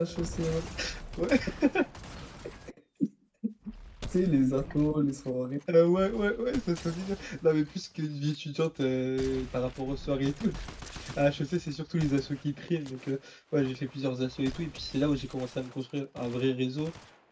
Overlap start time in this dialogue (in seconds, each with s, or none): none